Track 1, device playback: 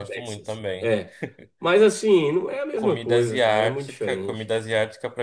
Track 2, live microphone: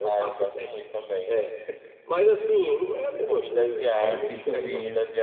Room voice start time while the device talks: 4.0 s

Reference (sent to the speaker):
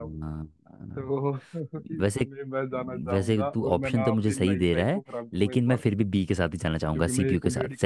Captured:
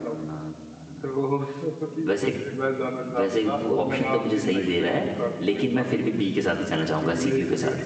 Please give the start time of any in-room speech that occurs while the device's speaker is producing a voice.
none

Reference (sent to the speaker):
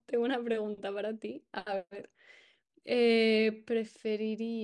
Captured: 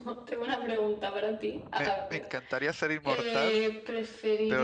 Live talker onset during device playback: 1.8 s

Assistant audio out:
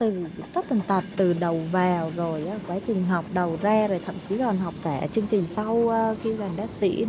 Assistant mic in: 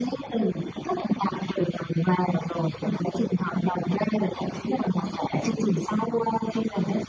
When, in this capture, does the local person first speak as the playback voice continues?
none

